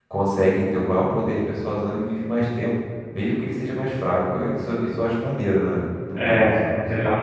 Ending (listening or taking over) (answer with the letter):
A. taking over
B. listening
A